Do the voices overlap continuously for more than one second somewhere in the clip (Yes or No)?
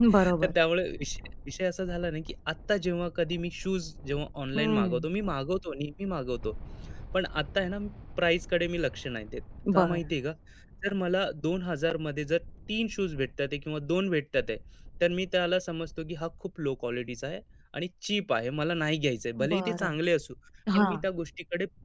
No